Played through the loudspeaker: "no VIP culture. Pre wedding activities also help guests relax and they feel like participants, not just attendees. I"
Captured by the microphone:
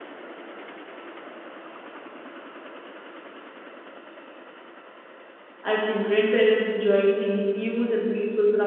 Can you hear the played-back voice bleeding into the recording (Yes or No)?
No